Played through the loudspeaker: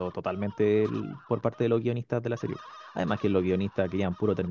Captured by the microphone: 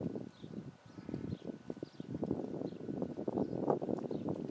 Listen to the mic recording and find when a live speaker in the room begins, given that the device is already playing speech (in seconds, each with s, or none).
none